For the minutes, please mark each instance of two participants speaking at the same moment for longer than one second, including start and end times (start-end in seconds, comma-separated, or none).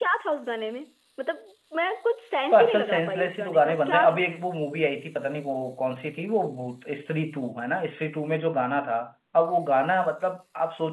2.5-4.5